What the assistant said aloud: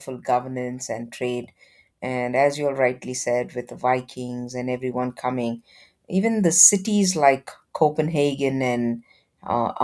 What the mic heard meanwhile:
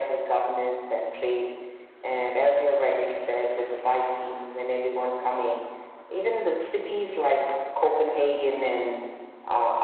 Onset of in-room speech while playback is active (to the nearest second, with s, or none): none